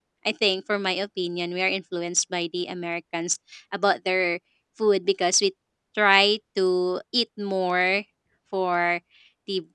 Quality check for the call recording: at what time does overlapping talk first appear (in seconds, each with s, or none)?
none